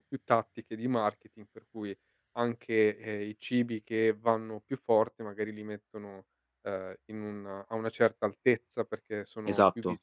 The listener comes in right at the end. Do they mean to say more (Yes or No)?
No